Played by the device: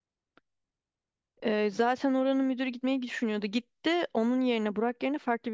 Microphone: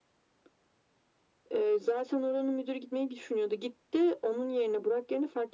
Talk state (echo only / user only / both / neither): echo only